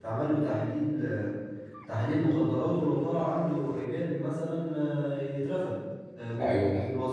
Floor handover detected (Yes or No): Yes